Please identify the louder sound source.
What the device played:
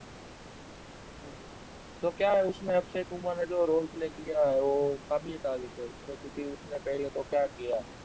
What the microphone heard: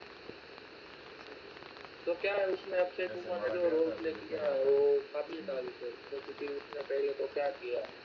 echo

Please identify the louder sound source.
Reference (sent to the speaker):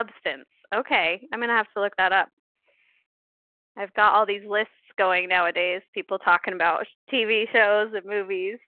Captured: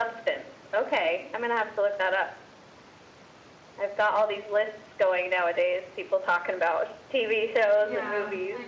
echo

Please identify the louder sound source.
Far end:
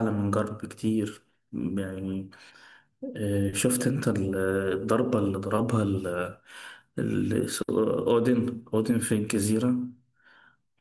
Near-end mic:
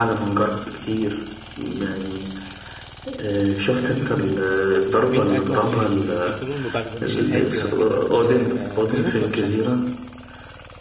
echo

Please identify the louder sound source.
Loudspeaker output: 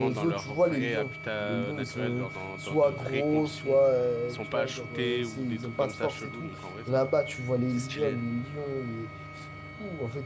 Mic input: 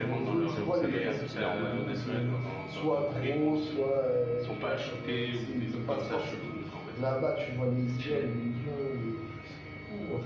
echo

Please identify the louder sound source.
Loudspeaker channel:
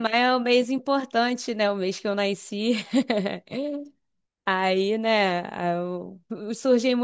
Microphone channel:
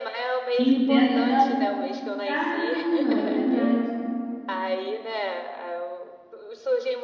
user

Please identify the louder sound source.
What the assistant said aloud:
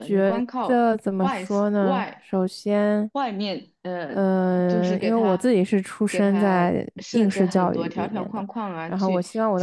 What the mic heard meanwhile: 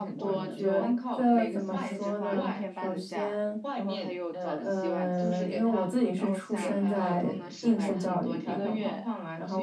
echo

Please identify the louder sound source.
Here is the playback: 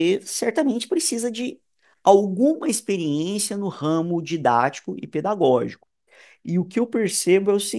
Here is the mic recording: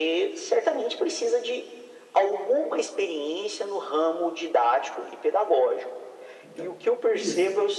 echo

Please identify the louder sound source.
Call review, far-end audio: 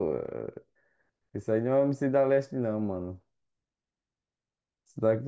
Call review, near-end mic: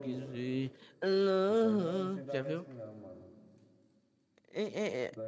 user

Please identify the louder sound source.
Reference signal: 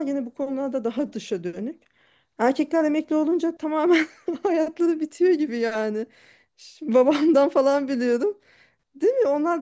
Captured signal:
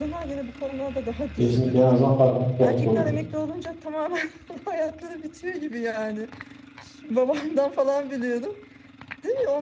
user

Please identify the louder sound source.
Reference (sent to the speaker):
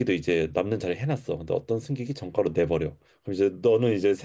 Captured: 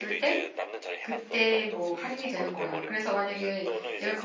user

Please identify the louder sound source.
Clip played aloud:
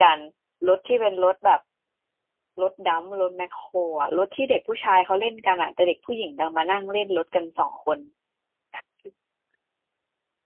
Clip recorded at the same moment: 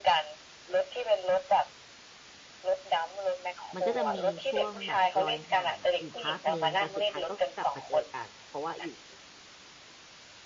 echo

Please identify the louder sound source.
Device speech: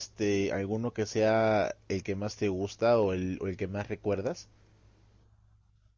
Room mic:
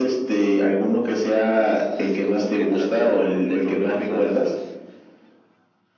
echo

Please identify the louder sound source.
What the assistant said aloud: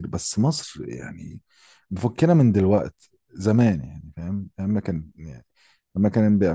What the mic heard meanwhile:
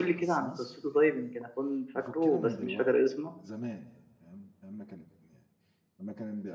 user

